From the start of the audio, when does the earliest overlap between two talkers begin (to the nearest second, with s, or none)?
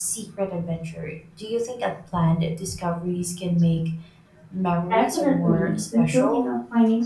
5 s